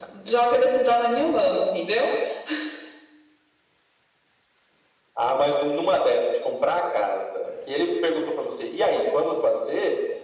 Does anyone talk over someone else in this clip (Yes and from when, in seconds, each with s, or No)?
No